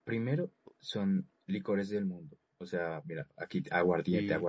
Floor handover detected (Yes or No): No